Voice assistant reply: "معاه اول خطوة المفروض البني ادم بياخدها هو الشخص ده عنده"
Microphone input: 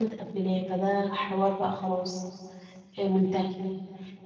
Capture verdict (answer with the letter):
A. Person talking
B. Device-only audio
A